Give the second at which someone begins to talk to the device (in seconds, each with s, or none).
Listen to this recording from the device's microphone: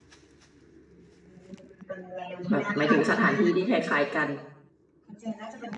2.5 s